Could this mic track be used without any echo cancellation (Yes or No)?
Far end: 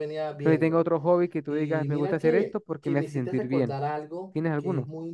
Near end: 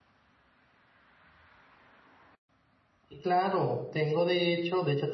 Yes